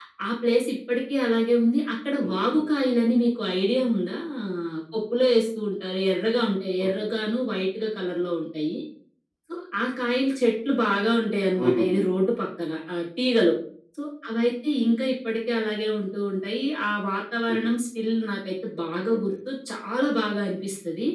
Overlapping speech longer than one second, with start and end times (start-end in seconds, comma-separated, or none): none